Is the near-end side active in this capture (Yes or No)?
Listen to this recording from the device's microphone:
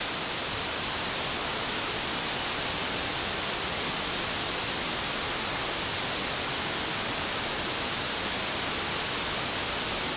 No